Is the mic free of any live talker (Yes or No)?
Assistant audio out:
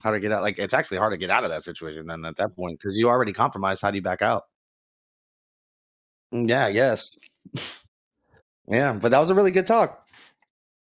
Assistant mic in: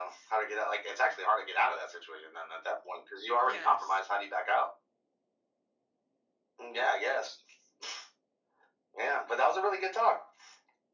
No